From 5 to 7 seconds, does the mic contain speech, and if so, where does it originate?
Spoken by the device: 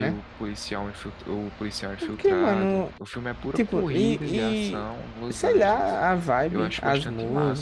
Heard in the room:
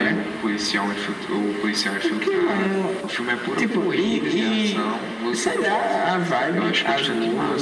echo only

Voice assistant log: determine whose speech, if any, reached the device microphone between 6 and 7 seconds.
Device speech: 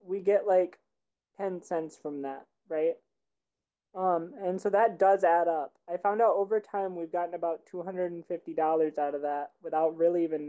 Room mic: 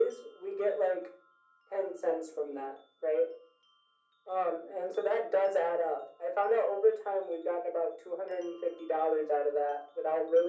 echo only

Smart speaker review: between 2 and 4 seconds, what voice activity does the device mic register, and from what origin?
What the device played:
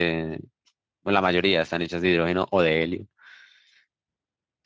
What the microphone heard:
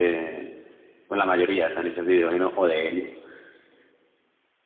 echo only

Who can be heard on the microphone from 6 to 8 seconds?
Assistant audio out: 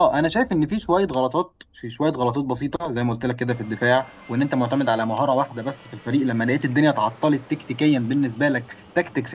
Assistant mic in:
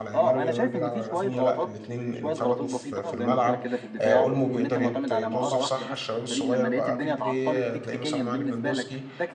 both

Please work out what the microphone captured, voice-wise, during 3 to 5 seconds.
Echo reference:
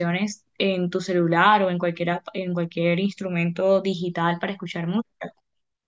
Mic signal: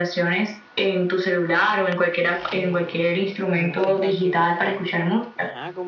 both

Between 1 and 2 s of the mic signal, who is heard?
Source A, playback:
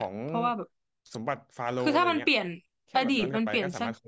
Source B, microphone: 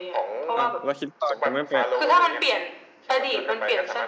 both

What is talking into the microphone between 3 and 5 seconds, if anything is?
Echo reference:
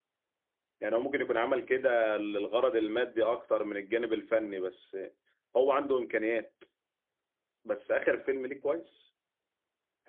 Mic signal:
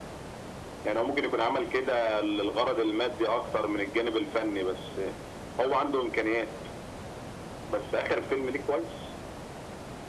echo only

